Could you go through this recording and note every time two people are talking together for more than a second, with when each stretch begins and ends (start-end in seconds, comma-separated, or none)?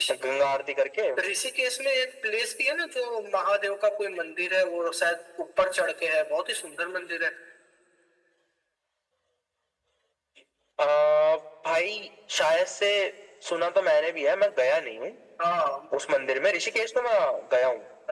none